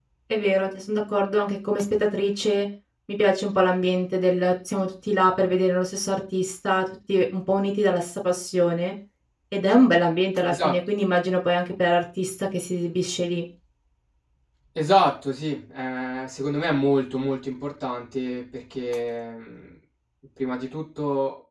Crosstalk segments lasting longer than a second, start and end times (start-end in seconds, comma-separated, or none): none